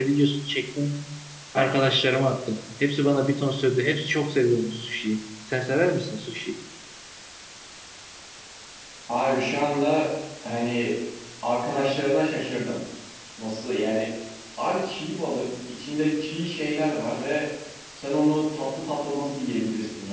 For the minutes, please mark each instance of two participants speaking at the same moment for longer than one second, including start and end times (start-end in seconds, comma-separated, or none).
none